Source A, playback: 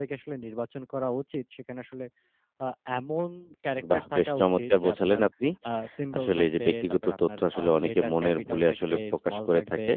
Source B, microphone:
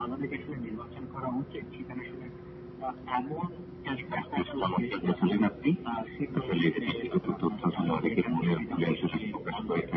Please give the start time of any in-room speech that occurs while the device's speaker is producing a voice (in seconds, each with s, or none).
none